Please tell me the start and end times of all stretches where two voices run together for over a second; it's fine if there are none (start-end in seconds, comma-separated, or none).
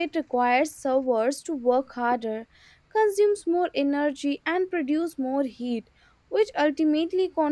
none